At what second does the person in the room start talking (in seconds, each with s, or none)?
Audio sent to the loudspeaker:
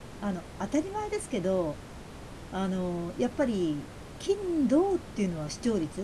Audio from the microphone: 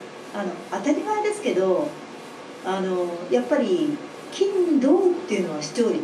none